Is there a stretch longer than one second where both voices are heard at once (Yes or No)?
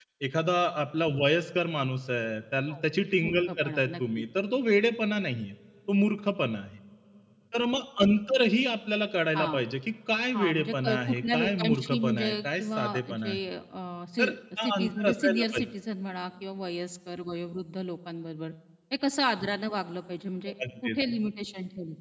Yes